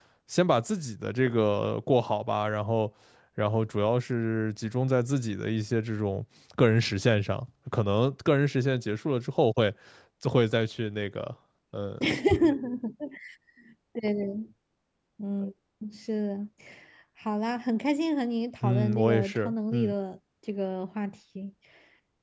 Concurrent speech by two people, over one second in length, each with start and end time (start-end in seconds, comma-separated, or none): 18.6-19.9